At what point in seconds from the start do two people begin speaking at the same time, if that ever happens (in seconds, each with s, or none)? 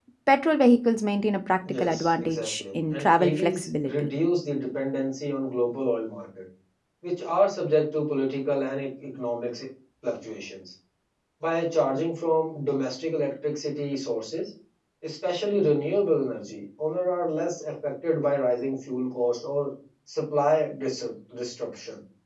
1.7 s